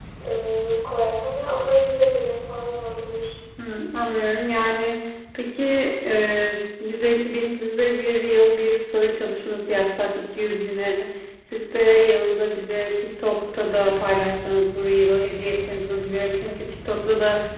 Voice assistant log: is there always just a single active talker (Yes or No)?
Yes